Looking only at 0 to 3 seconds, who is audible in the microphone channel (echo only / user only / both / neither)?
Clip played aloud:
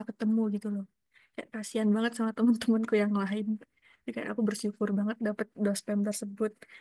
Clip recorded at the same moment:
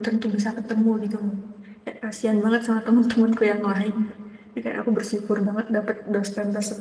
echo only